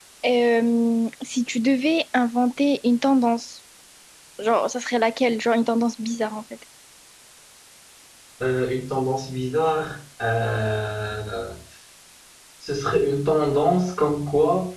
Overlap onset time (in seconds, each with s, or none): none